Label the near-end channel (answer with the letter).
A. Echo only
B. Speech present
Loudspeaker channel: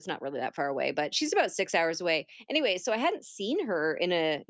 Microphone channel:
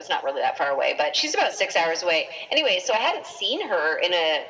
A